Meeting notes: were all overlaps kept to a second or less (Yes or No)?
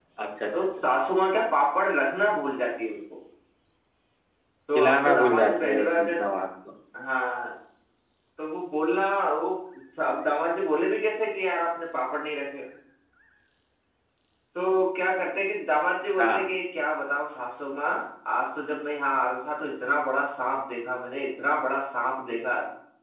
No